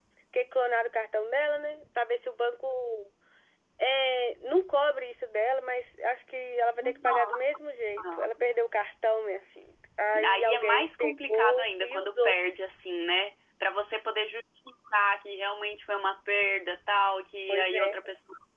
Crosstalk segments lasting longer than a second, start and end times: 6.8-8.3, 10.2-12.3

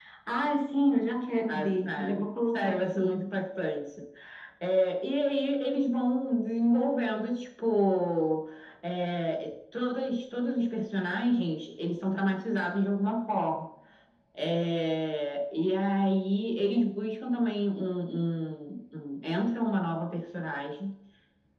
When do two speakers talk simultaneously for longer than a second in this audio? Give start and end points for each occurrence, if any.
1.5-3.2

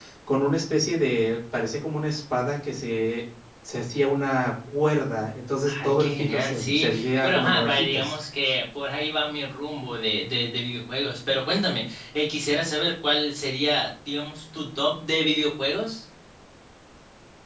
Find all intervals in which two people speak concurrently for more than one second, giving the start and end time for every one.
5.8-8.2

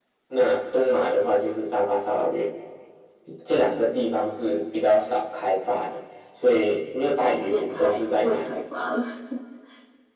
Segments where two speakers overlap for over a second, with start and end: 7.2-8.5

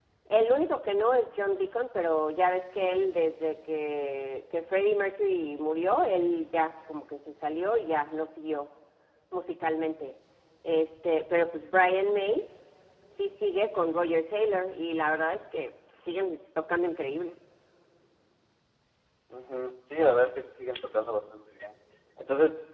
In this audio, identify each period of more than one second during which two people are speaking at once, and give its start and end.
none

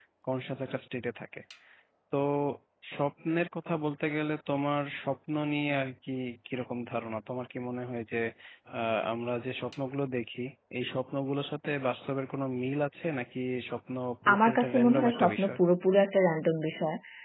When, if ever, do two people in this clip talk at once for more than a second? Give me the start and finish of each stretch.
14.3-15.6

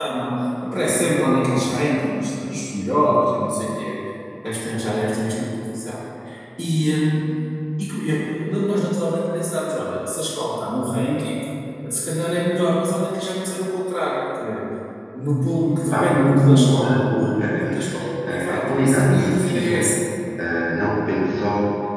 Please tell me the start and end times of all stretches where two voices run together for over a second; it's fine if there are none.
15.9-17.8, 18.3-19.9

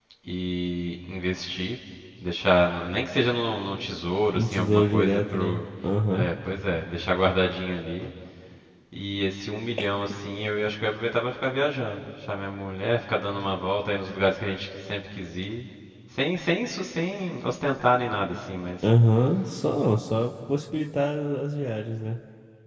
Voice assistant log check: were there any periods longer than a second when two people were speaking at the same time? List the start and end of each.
4.3-5.6

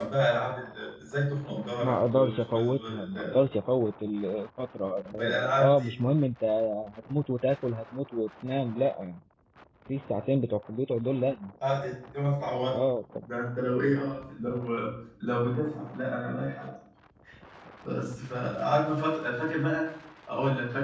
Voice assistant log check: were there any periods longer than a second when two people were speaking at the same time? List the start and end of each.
1.8-3.4

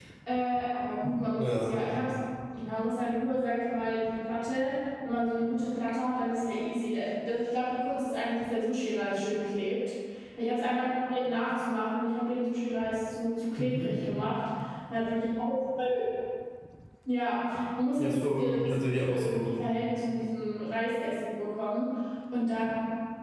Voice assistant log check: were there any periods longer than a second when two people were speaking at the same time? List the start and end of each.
18.0-19.4

